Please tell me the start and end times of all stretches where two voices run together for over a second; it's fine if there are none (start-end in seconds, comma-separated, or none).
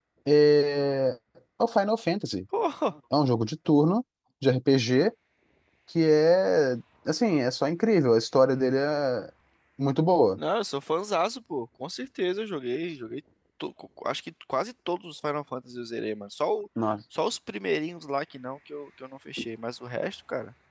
none